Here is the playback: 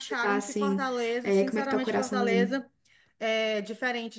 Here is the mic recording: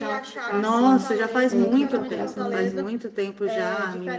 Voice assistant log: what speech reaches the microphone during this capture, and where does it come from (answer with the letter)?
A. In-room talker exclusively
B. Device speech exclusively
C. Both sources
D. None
C